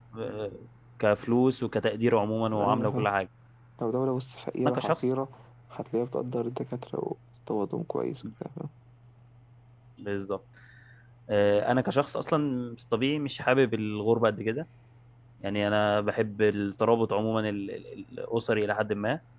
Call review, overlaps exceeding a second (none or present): none